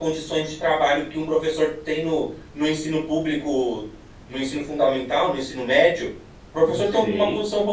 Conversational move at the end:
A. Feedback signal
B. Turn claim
A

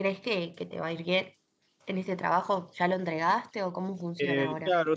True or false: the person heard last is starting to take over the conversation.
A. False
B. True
B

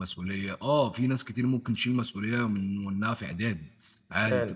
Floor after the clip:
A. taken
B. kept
B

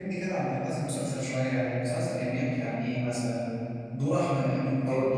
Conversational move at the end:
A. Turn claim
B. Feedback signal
B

